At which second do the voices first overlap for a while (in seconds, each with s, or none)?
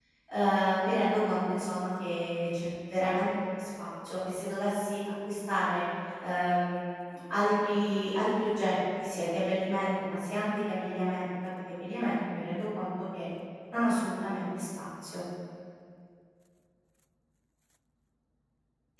none